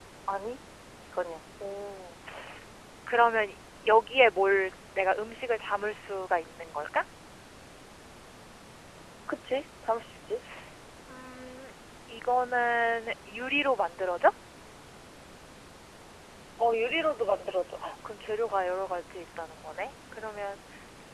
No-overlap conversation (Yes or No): Yes